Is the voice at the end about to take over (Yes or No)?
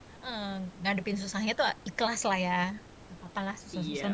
Yes